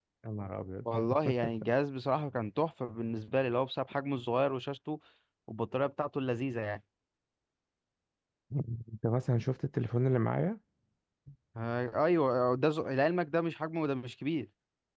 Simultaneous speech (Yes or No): No